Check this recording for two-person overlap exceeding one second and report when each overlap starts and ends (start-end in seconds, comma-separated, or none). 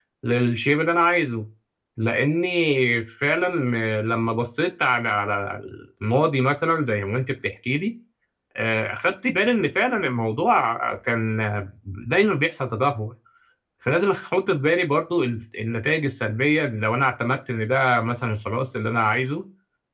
none